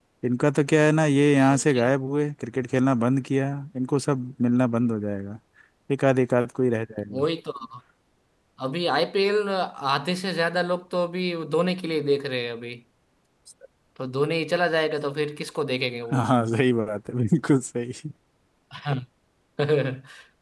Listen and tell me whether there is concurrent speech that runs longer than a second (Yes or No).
No